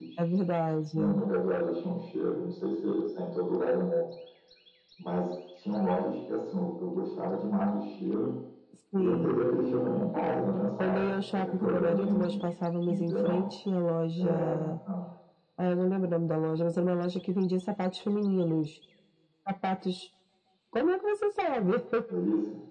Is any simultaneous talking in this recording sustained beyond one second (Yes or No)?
Yes